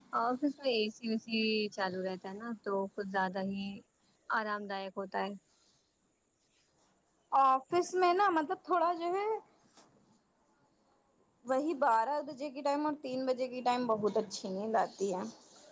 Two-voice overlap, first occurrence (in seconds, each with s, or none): none